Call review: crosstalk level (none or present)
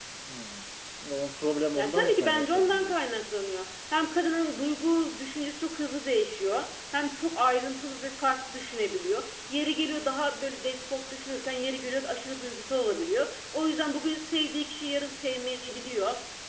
present